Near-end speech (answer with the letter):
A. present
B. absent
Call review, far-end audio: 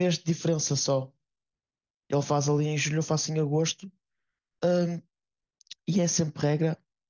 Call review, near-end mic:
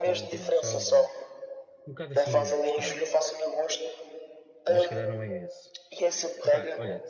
A